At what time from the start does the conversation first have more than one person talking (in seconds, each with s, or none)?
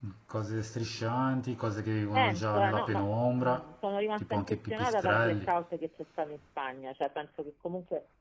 2.1 s